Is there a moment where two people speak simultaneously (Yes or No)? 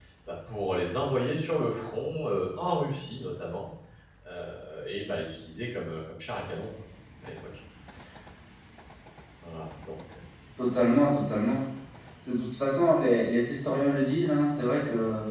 No